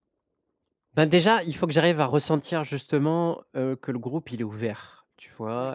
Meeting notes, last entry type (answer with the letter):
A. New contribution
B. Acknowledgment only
B